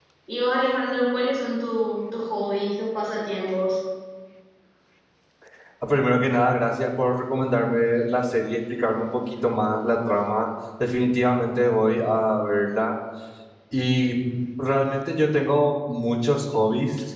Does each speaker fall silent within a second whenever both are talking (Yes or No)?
Yes